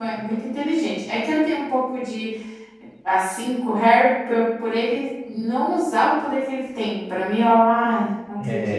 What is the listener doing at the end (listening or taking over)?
taking over